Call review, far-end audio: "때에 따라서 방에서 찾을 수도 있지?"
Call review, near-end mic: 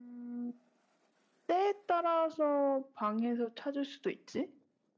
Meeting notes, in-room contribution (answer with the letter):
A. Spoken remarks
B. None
B